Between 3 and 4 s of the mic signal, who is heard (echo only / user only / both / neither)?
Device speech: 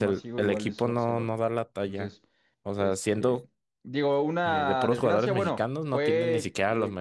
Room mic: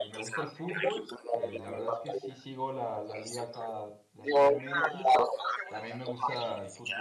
both